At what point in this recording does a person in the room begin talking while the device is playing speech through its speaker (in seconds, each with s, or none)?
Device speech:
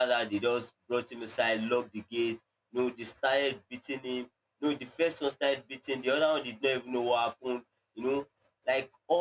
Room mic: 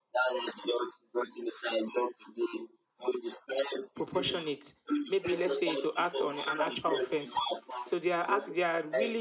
3.9 s